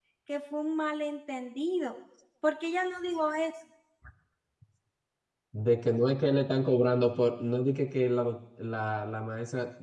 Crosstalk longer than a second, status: none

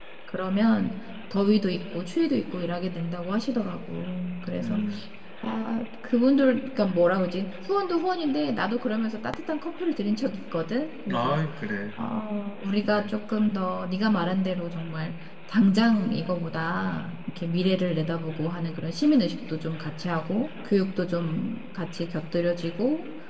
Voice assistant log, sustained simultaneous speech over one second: none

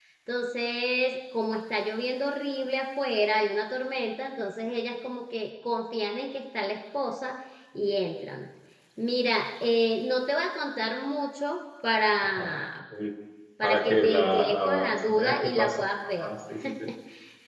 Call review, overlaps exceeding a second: present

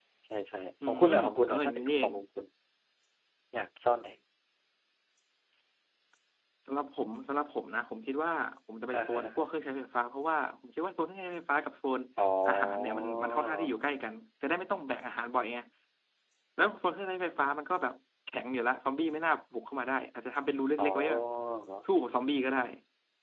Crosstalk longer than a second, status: present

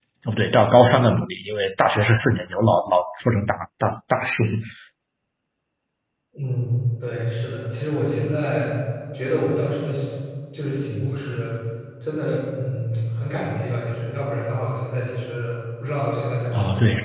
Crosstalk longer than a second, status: none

